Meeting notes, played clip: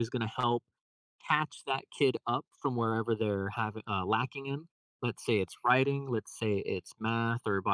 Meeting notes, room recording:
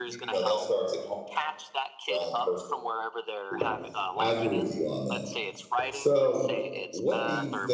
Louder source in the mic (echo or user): user